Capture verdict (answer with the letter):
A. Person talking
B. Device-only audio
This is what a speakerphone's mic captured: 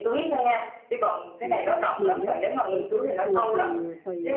A